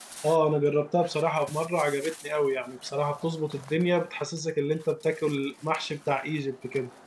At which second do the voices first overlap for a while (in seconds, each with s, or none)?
none